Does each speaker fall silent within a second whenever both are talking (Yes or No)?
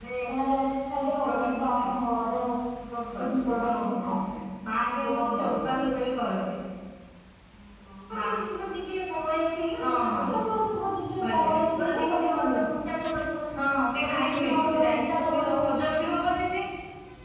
No